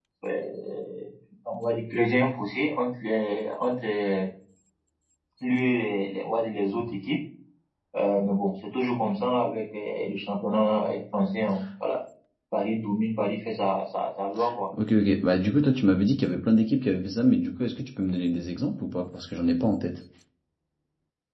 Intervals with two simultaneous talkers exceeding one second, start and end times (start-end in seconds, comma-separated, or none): none